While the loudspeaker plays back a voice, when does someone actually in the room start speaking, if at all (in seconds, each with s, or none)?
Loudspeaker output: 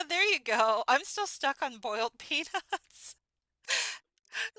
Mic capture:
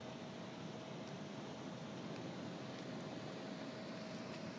none